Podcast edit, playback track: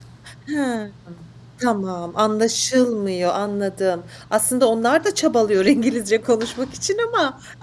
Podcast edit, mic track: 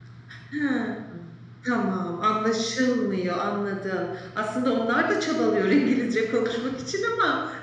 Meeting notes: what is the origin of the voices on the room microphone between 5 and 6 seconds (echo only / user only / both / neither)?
echo only